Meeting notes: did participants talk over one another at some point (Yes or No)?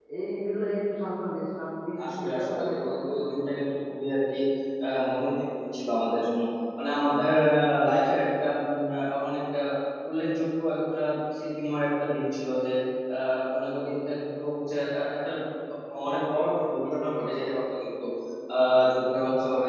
Yes